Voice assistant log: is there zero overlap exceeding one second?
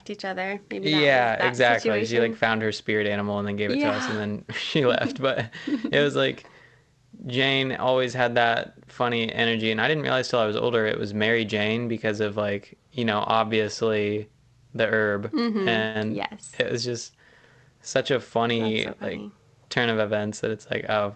No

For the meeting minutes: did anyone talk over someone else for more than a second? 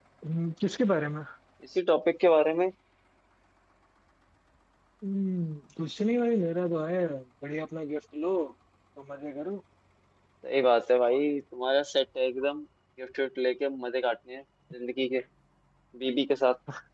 No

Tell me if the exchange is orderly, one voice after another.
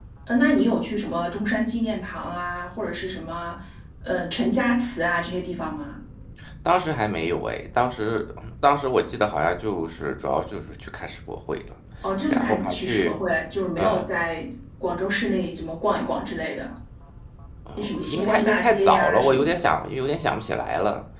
No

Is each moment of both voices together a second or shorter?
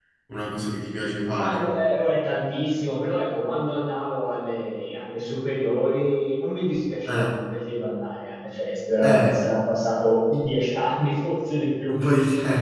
Yes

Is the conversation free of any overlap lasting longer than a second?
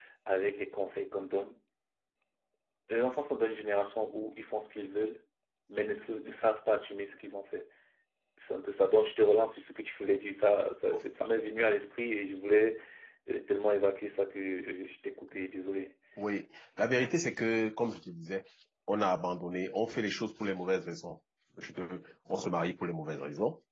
Yes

